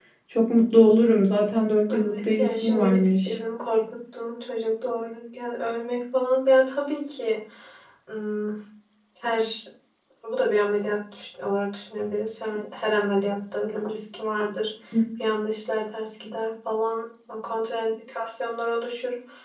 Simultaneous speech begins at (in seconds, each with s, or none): 1.9 s